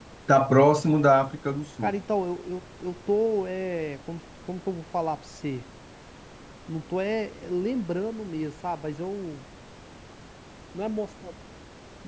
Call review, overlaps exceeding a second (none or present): none